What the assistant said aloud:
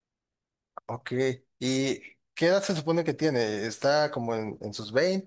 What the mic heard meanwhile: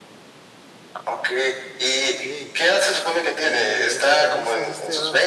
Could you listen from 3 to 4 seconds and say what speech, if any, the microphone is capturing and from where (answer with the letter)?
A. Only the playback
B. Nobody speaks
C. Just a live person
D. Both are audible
D